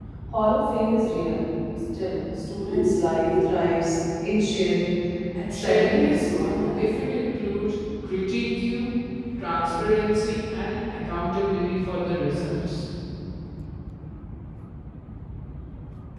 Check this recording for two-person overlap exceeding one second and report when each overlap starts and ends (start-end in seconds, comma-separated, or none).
5.6-7.0